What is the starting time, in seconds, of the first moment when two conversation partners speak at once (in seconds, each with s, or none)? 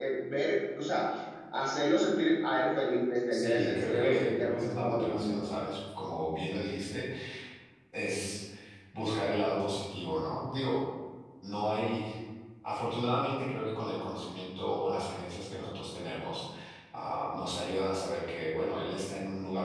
3.3 s